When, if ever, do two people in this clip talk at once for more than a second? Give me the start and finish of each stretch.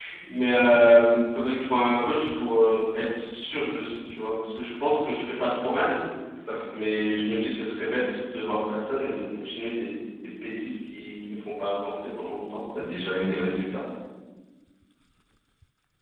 none

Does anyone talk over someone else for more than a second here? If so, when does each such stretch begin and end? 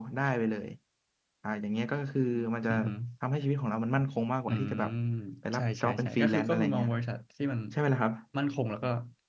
5.5-6.9

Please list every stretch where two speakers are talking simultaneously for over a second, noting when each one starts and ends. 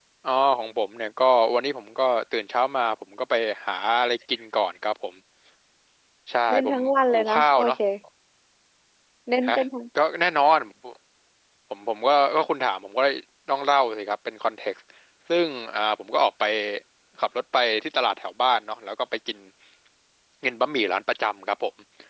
6.5-7.8

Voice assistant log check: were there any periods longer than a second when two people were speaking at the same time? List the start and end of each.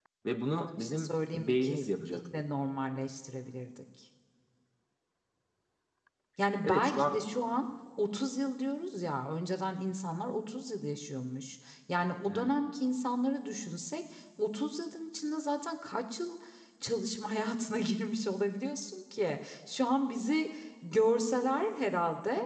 0.6-2.5

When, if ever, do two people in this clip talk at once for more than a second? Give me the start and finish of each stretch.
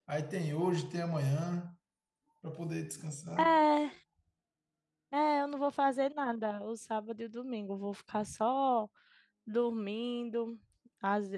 none

